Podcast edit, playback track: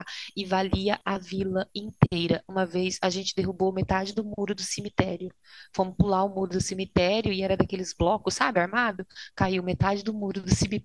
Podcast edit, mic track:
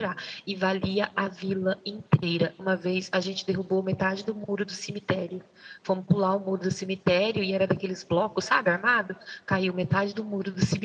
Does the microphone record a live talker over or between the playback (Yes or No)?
No